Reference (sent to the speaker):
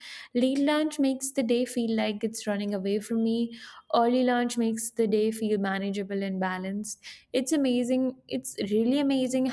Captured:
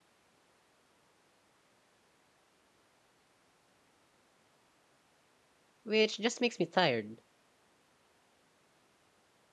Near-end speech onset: 6 s

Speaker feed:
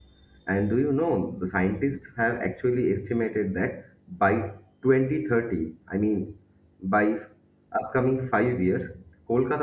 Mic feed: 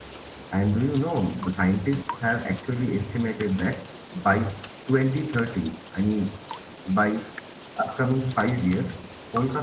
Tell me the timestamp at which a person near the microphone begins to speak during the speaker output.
none

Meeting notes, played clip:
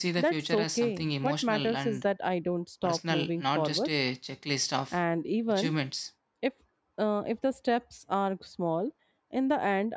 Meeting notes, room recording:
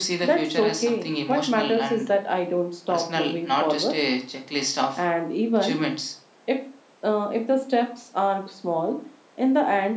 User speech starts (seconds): none

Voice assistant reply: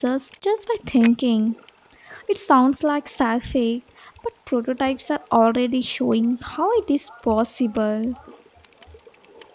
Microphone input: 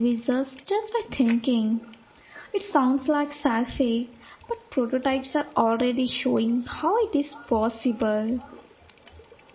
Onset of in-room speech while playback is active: none

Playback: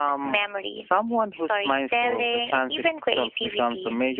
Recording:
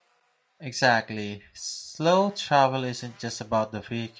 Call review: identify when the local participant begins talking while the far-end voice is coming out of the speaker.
1 s

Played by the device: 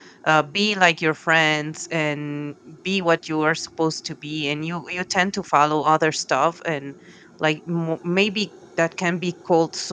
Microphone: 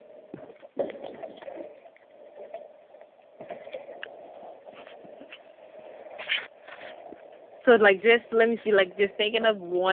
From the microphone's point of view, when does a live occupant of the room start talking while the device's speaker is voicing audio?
8 s

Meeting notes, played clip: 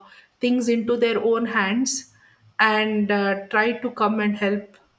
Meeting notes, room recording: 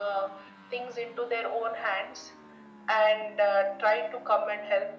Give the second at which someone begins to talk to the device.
none

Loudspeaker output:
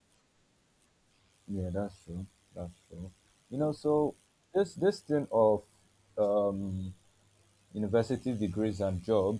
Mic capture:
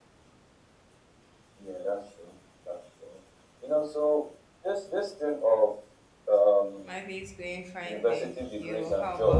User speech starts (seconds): 7 s

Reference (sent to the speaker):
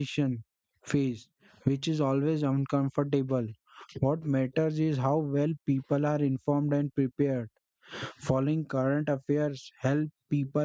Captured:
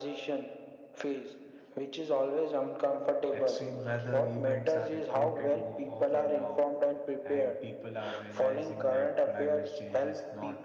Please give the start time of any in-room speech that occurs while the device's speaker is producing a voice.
3 s

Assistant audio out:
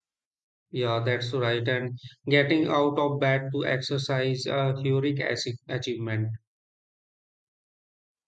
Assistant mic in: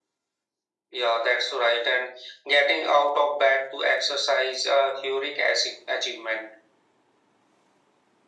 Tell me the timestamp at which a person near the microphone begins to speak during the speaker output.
none

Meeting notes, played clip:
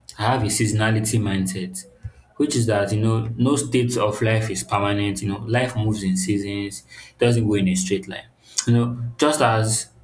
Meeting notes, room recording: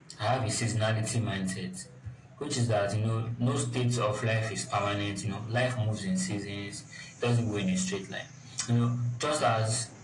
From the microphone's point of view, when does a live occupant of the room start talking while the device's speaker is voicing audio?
none

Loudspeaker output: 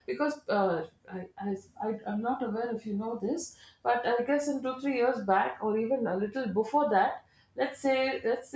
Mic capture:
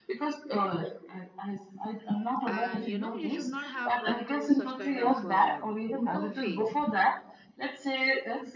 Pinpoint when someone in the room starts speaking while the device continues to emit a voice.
2 s

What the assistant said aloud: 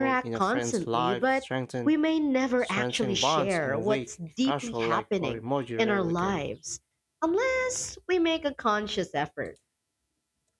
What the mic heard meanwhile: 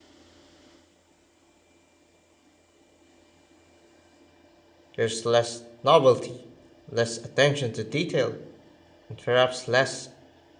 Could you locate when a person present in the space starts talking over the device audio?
5 s

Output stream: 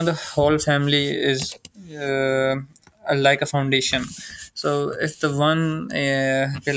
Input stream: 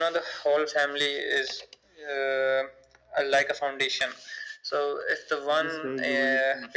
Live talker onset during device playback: 5 s

